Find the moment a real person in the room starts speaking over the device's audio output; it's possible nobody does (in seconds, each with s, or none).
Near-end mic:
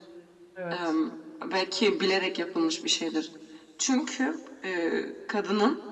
0.5 s